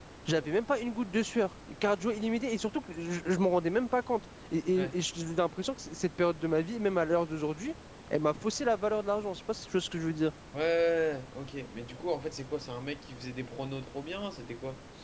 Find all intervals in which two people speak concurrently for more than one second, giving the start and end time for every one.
none

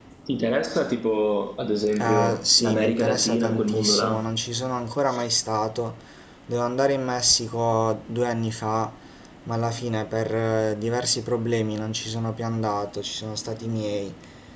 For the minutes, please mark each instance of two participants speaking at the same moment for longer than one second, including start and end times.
2.0-4.3

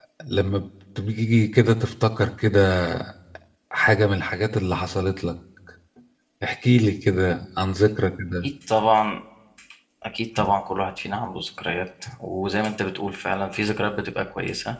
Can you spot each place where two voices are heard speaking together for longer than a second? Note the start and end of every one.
none

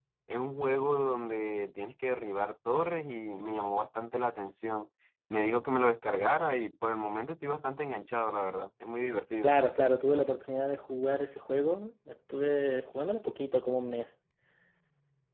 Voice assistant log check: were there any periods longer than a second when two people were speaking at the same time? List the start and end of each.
none

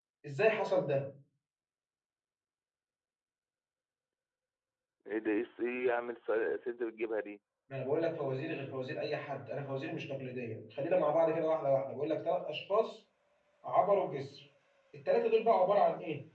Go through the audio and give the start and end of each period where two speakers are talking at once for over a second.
none

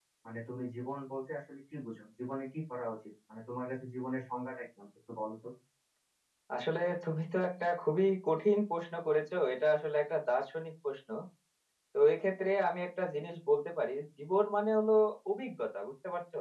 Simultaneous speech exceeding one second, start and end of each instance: none

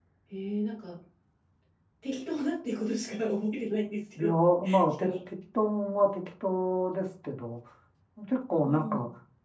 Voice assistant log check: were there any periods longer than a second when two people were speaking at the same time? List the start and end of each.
none

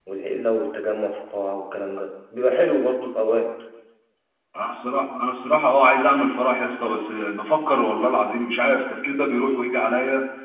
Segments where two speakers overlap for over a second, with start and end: none

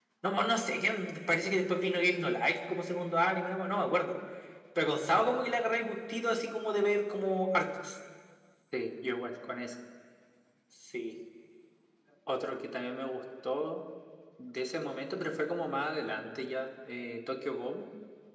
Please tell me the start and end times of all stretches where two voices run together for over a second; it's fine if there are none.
none

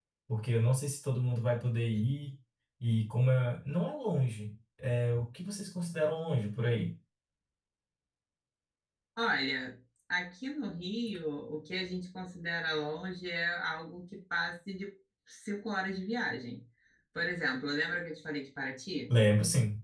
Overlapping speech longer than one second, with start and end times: none

